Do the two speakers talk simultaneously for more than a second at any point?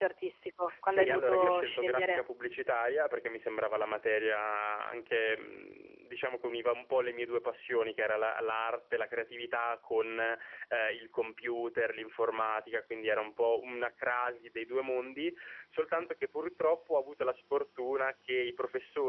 Yes, from 0.9 s

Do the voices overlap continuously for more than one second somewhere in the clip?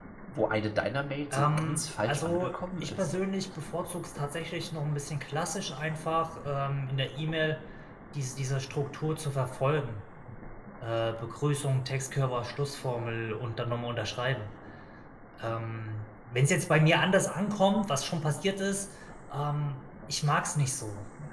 Yes, from 1.3 s

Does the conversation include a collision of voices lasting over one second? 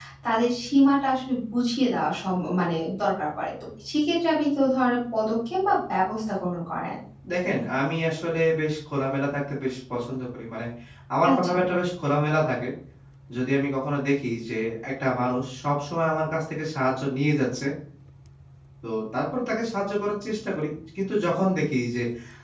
No

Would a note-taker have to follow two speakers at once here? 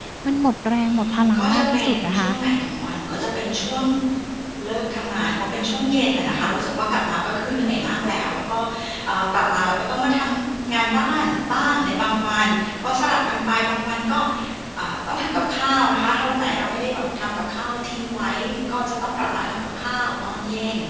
Yes, from 0.8 s

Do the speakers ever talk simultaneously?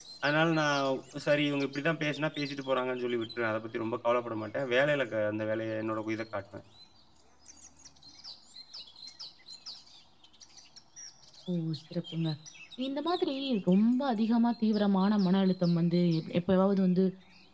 No

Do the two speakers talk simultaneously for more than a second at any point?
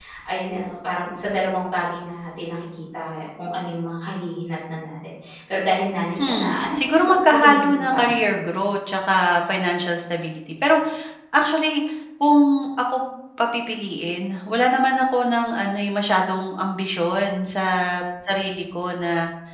Yes, from 6.2 s

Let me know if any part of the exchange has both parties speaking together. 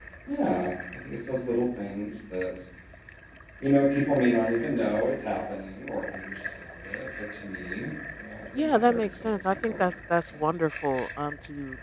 Yes, from 8.6 s

